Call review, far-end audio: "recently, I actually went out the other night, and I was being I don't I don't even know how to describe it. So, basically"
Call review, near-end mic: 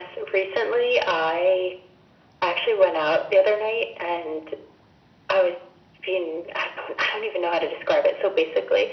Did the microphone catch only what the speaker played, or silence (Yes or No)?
Yes